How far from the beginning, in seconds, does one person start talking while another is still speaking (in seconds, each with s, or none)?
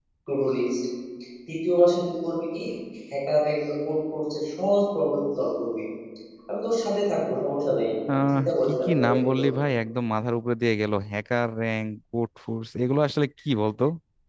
8.3 s